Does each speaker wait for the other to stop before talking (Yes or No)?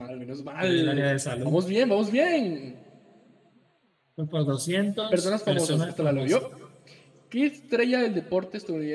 No